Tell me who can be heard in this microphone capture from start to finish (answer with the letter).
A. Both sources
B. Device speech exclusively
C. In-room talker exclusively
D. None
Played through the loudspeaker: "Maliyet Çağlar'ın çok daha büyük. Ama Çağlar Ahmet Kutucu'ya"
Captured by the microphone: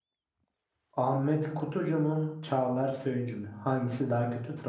C